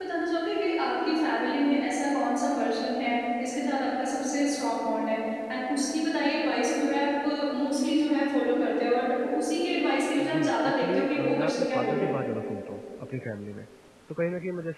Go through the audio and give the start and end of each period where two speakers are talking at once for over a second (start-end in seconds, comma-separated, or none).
10.2-12.1